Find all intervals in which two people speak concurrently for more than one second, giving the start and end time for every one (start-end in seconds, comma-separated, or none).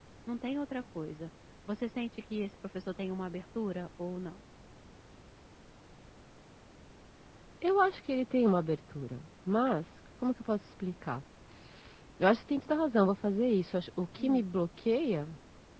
none